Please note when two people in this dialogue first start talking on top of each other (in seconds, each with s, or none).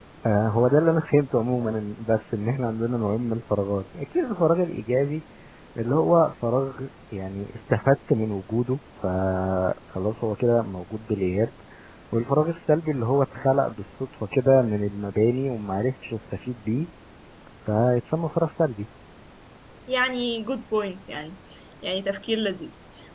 none